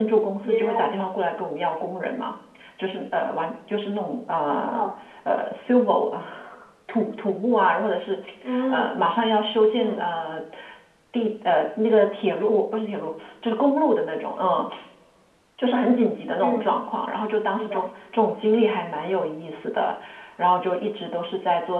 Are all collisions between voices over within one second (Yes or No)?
Yes